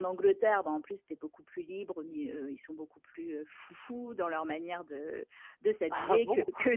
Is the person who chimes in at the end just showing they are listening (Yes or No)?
Yes